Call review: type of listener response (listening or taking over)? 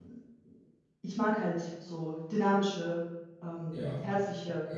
taking over